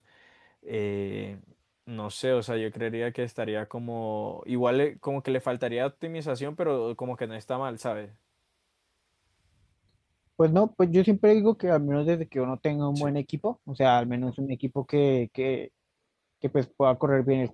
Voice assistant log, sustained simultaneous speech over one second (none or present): none